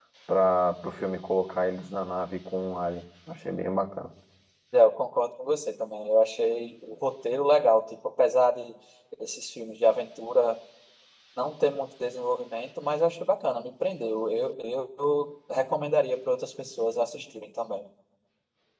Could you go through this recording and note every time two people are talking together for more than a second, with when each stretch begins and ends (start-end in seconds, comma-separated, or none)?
none